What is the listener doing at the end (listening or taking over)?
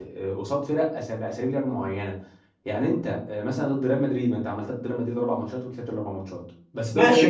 taking over